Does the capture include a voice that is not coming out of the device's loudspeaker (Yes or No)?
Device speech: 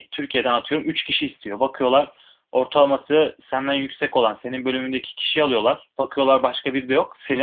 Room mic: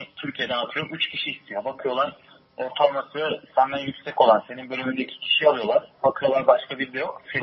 No